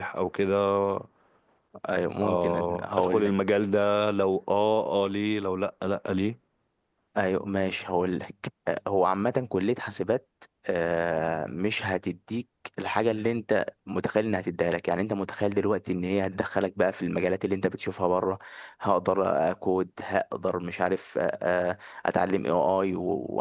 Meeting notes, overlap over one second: present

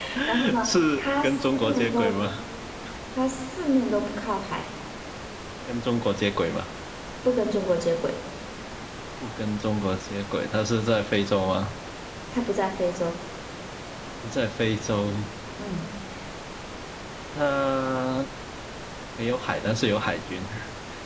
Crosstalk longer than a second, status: present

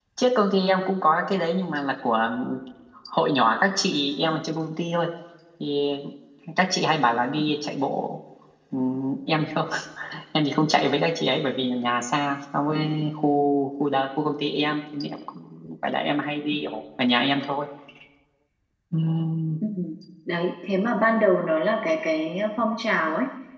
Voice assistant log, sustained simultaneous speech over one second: none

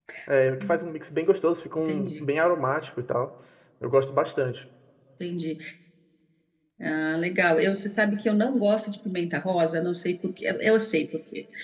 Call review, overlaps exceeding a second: none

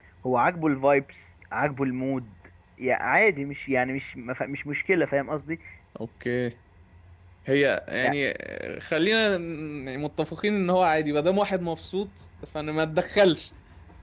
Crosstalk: none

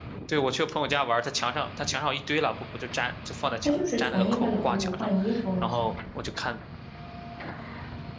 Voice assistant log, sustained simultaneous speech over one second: present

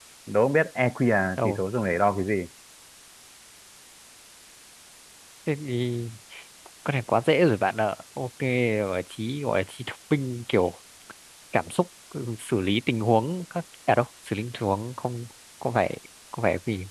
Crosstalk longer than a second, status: none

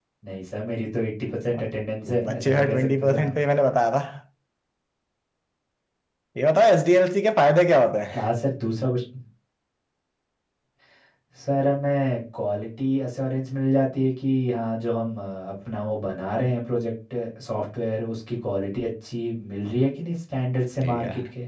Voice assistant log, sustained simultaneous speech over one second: present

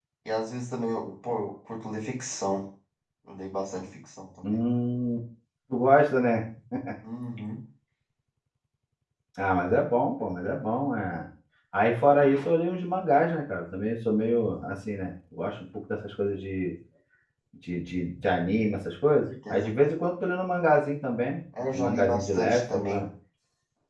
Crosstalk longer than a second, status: present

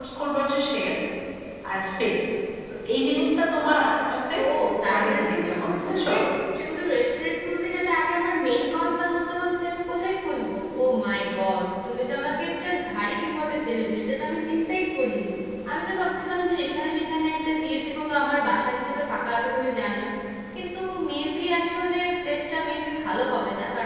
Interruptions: present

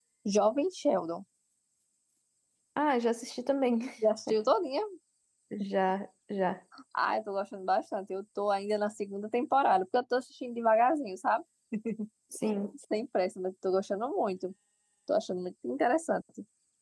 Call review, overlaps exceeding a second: none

